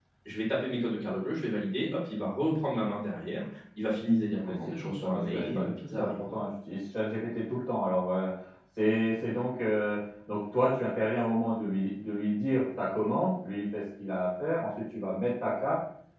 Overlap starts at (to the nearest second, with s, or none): 4 s